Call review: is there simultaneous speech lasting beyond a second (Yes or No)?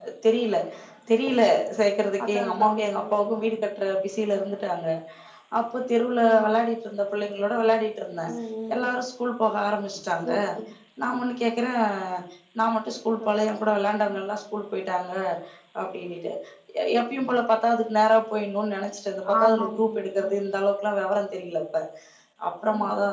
Yes